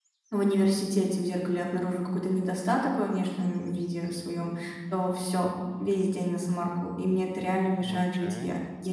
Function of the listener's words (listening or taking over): listening